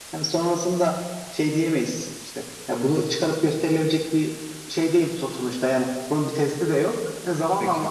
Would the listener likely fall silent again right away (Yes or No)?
Yes